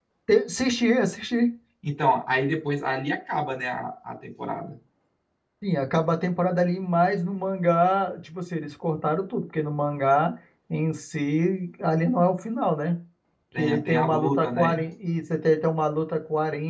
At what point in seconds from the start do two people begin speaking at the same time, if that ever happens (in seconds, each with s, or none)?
13.6 s